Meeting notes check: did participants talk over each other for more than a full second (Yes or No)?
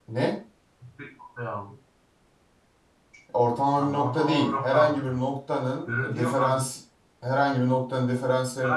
Yes